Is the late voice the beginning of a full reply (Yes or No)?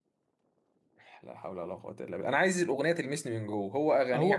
Yes